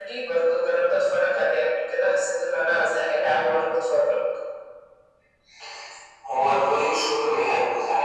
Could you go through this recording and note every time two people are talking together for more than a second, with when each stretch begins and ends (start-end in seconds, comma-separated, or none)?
none